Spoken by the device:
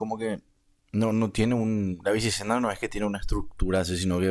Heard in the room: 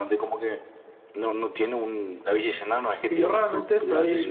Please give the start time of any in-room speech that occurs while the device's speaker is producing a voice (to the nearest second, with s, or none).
3 s